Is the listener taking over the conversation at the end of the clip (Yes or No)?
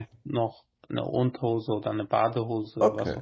Yes